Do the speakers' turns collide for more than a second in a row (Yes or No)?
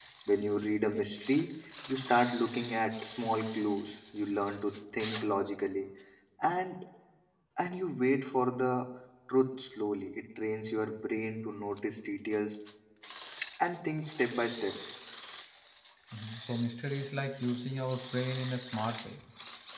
No